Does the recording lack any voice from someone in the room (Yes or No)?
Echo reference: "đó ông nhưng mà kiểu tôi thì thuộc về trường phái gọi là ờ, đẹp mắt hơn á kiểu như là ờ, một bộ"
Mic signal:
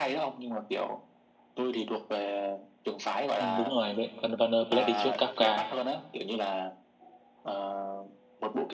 No